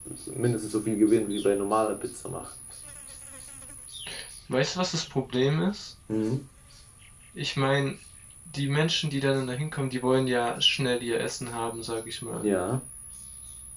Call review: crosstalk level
none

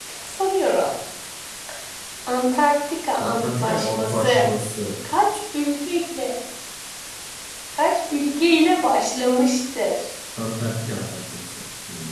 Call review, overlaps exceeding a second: present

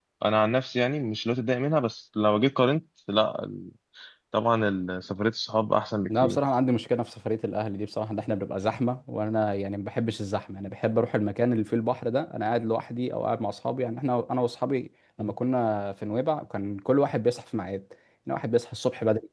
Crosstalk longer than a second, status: none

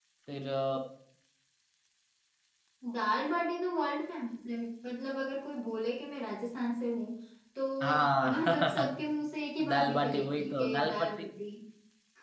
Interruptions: present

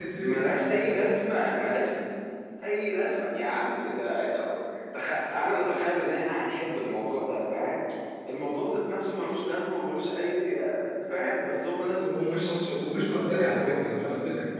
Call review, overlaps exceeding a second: present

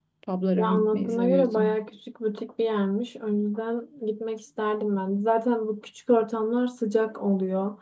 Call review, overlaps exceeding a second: present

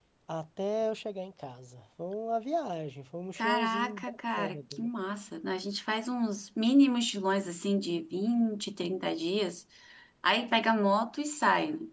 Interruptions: present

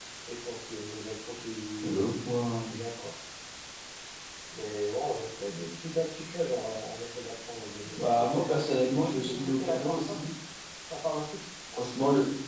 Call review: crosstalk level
present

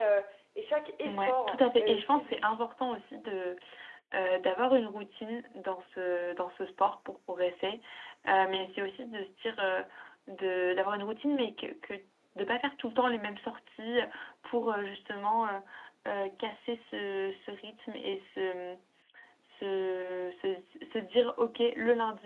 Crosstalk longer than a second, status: present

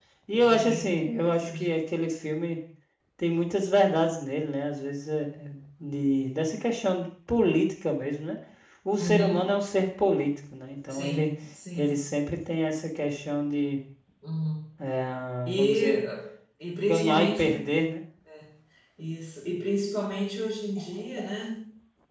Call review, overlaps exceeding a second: present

